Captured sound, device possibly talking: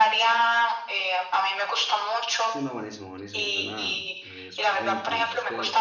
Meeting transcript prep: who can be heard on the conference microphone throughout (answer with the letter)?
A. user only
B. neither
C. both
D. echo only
C